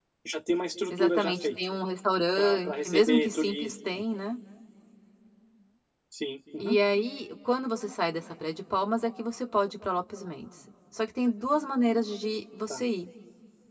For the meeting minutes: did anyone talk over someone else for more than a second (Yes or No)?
Yes